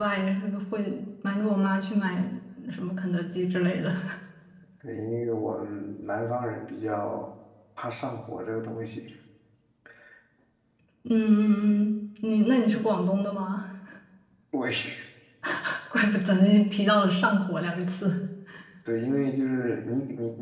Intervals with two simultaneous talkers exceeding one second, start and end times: none

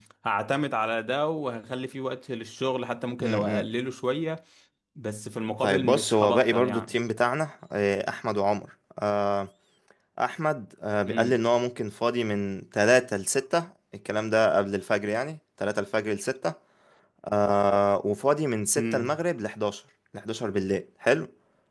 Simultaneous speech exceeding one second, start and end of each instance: 5.6-7.0

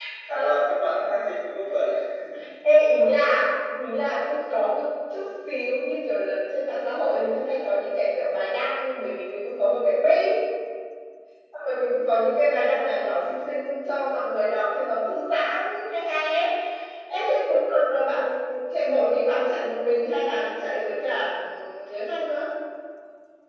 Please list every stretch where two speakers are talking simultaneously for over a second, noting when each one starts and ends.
none

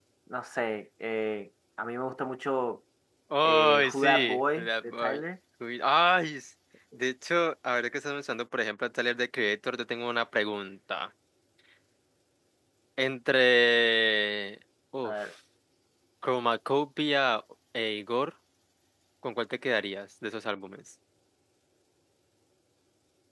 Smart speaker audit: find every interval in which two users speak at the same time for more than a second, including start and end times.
3.5-5.2

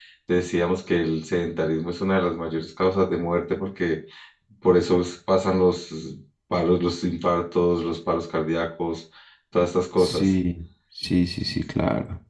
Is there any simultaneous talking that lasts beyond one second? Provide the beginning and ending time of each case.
none

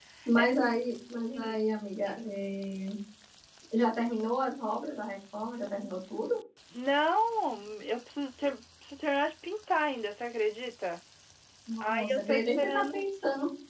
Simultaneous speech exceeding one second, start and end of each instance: 11.8-13.1

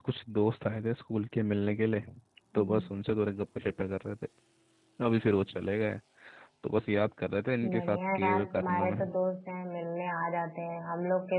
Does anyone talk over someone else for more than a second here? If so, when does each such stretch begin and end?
7.6-9.0

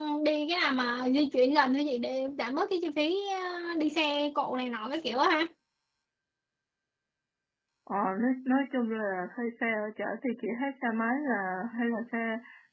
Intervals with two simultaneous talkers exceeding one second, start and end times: none

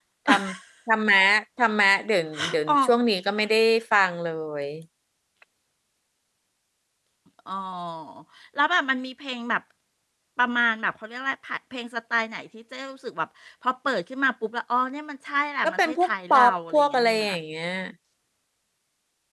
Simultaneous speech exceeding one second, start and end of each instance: 15.6-17.2

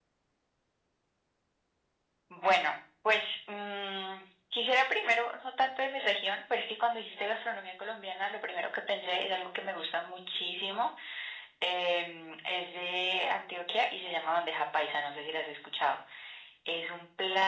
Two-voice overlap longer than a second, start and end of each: none

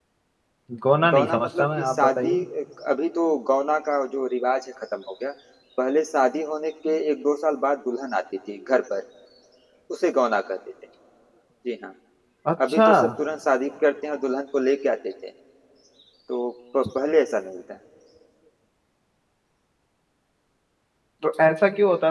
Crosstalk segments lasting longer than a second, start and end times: 1.1-2.3

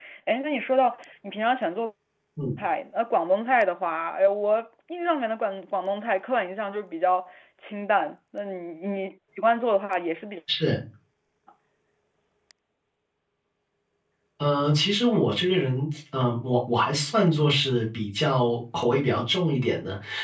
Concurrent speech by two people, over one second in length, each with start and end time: none

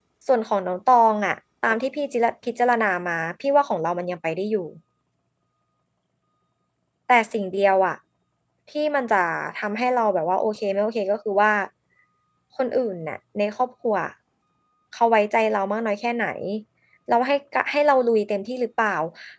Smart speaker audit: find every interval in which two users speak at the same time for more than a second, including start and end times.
none

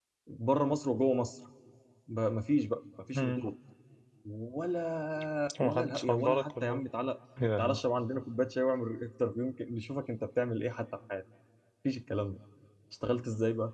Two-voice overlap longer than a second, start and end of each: 5.6-6.8

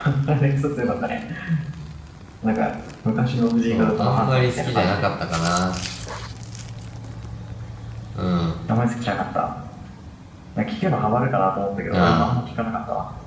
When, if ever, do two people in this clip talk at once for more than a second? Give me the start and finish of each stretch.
3.5-5.1

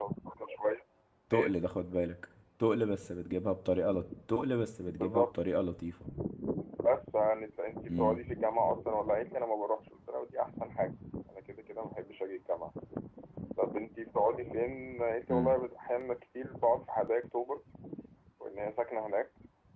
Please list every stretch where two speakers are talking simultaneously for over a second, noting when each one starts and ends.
none

